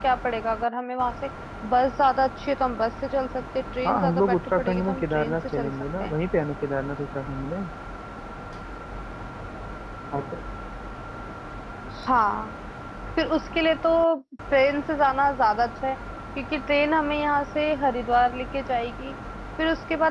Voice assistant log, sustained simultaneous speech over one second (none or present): present